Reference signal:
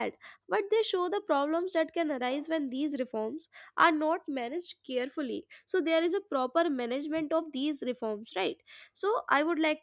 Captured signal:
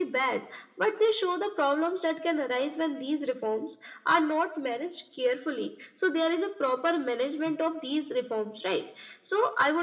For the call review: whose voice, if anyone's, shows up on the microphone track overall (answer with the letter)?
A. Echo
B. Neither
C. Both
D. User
A